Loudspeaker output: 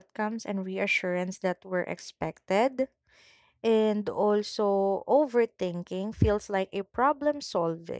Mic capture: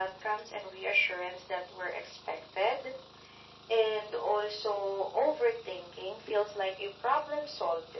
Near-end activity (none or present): none